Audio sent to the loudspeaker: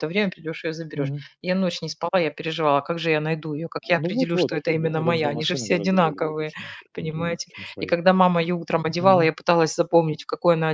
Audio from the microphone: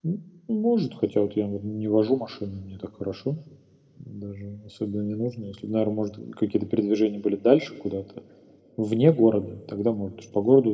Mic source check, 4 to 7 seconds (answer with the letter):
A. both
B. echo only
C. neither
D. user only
D